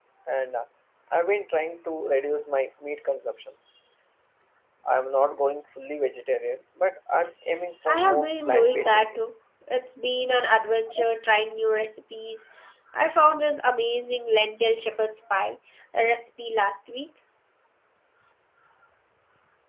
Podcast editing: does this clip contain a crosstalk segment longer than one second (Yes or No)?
Yes